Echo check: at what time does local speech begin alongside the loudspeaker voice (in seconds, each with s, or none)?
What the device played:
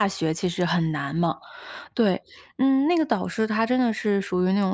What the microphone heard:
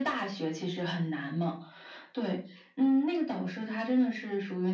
none